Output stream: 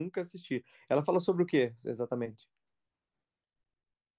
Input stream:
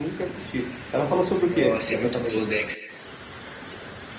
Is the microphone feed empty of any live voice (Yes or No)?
No